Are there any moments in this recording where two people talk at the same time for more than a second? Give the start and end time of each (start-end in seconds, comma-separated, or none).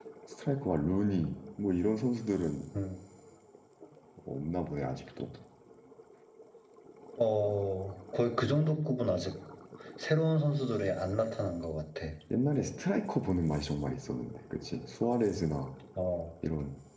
none